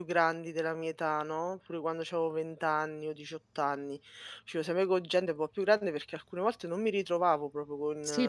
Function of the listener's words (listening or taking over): taking over